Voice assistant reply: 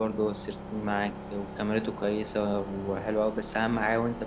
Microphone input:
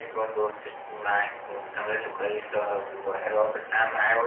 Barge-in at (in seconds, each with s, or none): none